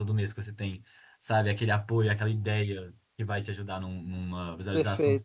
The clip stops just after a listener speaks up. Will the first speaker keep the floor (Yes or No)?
No